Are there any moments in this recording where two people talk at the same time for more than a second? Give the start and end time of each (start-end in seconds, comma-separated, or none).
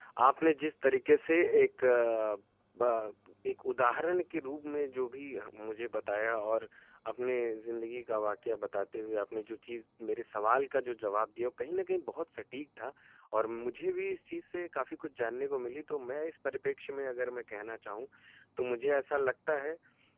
none